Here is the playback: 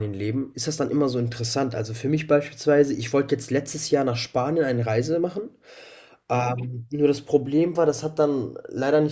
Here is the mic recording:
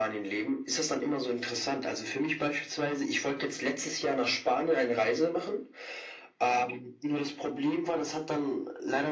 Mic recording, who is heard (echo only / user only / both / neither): echo only